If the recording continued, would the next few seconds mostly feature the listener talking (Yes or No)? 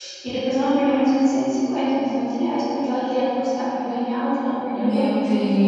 Yes